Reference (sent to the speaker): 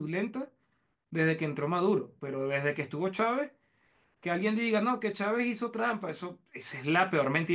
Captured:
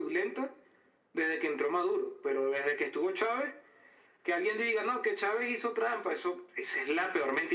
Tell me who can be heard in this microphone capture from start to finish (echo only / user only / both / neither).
echo only